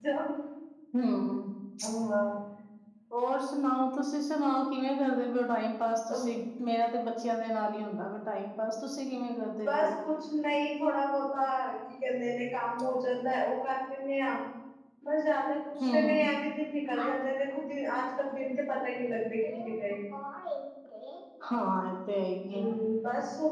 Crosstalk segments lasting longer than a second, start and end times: none

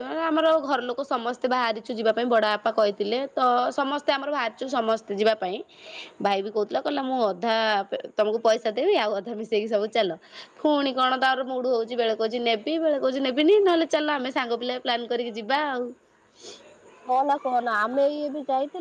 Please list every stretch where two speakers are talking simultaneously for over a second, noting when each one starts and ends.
none

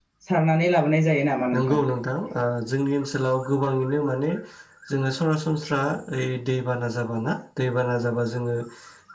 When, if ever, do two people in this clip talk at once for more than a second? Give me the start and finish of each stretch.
none

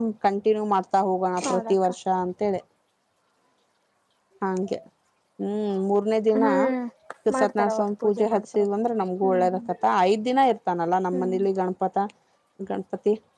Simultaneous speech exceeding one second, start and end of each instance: 7.4-8.6

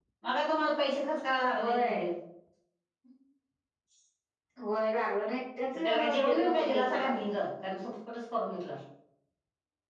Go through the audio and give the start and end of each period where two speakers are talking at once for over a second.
5.7-7.1

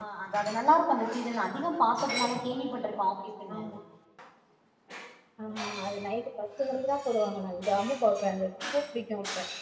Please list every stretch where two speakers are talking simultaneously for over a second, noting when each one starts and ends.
none

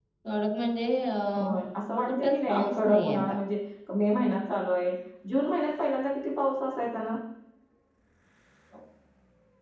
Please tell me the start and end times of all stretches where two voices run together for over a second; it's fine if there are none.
2.0-3.3

